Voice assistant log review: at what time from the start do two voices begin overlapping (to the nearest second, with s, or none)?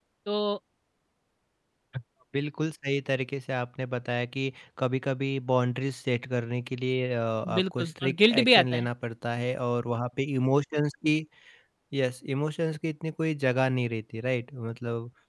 7 s